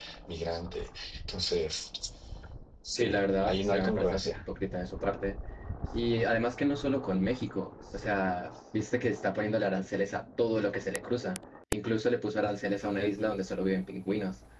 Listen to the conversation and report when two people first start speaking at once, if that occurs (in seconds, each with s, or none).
3.0 s